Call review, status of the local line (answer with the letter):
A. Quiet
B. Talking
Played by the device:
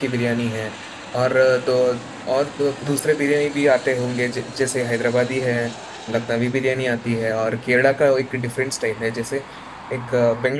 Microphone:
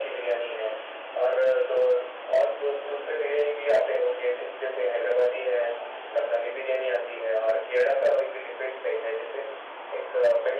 A